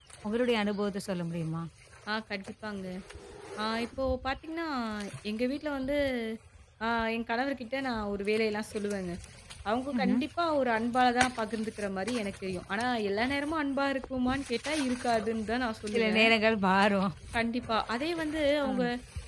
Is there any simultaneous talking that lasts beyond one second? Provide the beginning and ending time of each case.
none

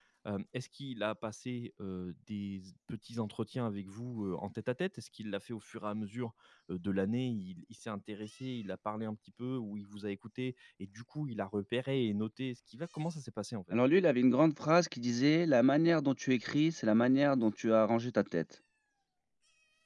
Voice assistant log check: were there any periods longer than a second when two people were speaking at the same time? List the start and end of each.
none

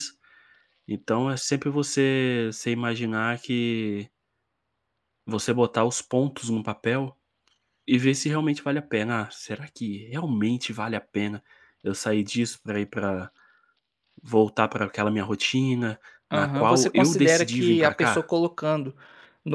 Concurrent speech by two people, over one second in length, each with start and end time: 16.3-18.2

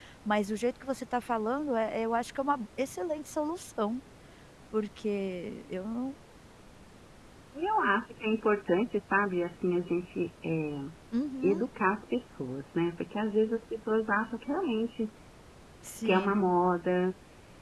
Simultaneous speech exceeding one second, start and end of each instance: none

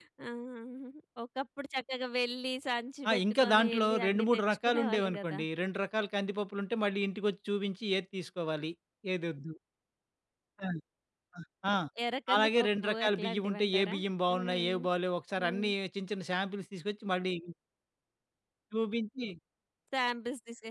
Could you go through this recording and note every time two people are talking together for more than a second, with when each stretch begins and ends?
3.1-5.4, 12.3-13.9

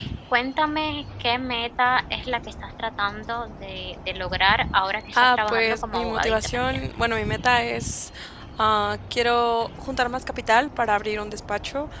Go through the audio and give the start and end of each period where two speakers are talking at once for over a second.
5.1-6.8

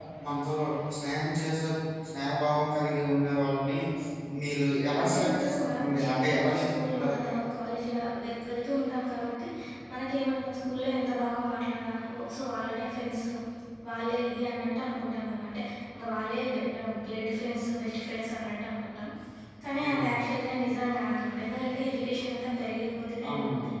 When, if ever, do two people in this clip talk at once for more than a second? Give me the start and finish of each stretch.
5.0-7.2

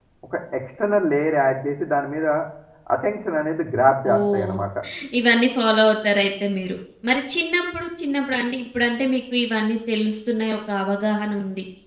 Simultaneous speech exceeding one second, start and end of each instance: none

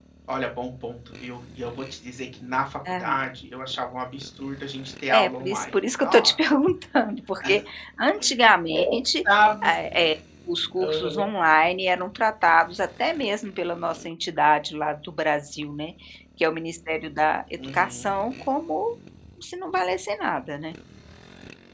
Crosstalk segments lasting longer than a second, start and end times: 5.1-6.5

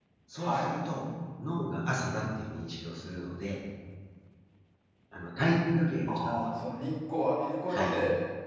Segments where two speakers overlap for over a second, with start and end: none

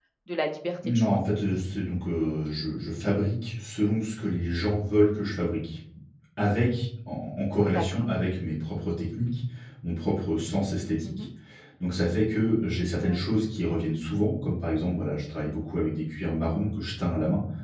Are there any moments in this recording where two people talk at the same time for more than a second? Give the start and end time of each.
none

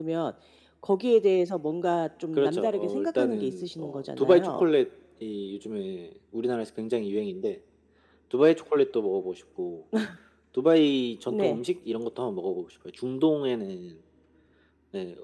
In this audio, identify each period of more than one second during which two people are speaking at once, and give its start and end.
2.4-4.6

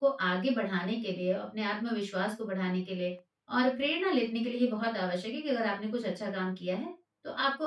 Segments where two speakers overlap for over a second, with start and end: none

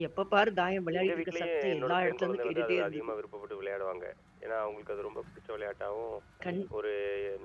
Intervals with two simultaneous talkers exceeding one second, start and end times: 1.0-3.0

